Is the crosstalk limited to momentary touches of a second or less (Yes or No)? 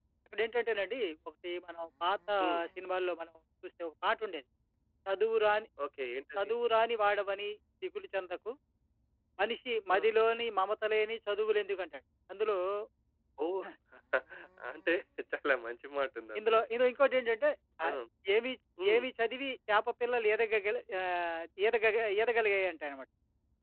Yes